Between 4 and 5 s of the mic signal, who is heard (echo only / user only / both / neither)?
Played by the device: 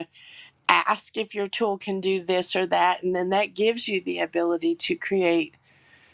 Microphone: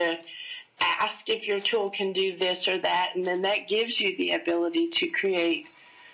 echo only